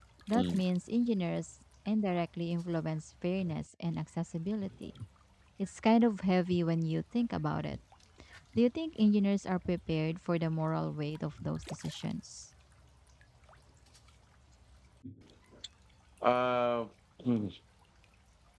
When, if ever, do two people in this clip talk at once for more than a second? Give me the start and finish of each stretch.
none

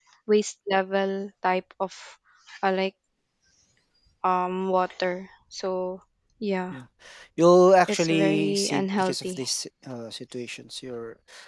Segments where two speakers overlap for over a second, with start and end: 7.9-9.4

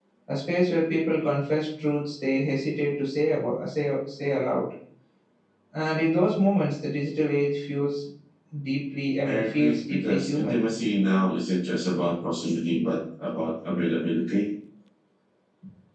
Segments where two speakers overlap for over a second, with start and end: 9.2-10.6

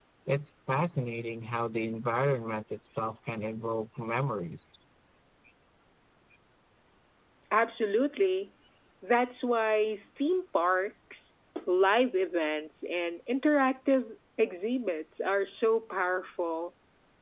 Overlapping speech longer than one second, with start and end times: none

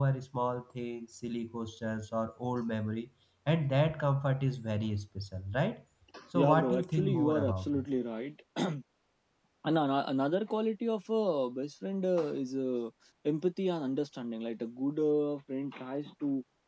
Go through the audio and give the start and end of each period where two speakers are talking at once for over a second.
6.3-7.9

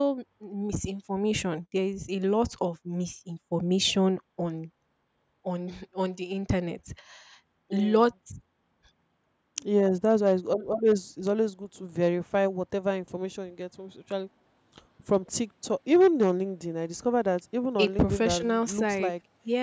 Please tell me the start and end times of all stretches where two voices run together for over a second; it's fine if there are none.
17.8-19.1

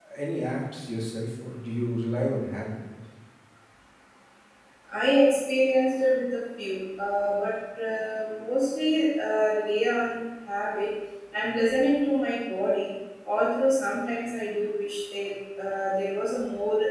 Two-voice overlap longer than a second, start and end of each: none

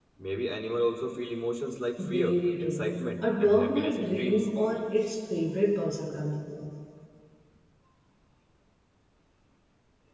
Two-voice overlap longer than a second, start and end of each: 2.0-4.5

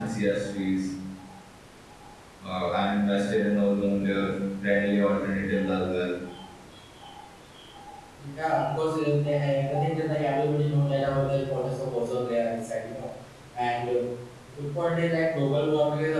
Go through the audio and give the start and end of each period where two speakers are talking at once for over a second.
none

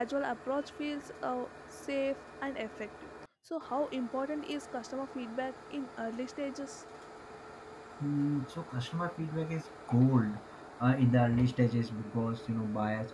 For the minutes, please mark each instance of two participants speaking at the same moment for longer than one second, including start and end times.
none

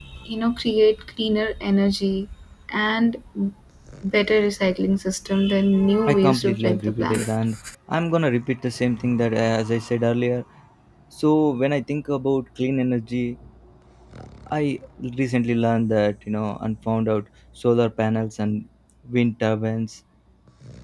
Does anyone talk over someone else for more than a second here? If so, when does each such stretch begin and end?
6.0-7.3

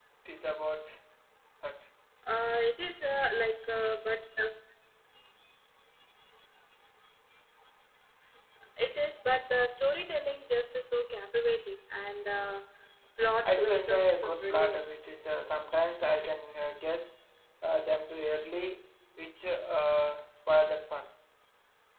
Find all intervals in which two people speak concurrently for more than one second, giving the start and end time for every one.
13.4-14.8

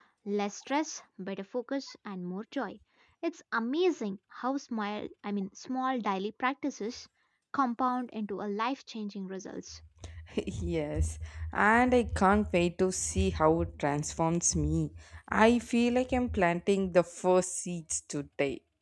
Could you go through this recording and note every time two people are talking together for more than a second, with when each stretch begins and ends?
none

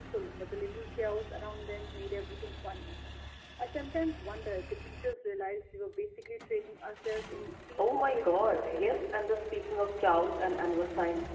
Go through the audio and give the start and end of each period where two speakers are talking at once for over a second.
7.8-9.1

